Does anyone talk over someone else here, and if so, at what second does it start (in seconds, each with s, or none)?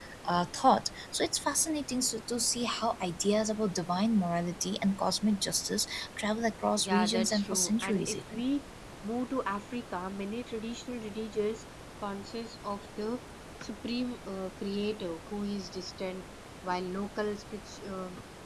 6.8 s